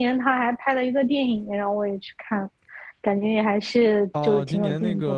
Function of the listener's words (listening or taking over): taking over